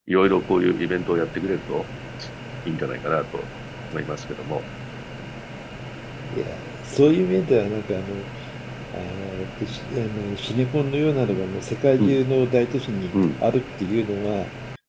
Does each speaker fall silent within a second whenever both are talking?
Yes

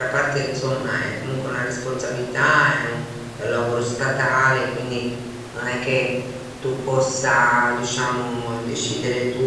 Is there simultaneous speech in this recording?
No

